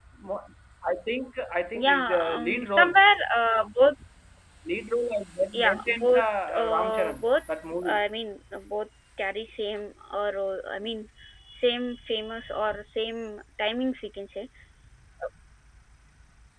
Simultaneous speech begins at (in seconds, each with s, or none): 1.8 s